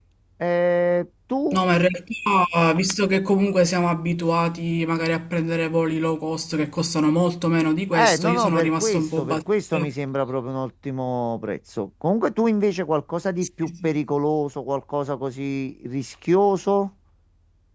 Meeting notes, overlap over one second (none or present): present